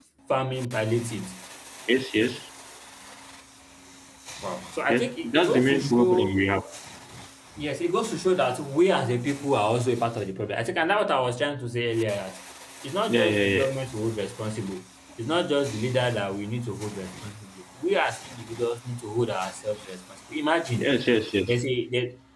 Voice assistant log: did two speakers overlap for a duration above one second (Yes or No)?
Yes